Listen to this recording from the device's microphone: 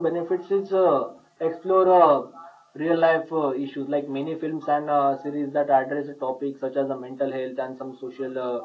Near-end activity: none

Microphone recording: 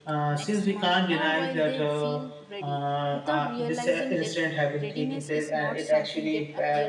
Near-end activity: present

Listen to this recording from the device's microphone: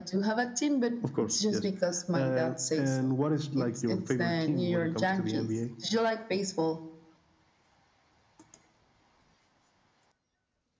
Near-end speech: none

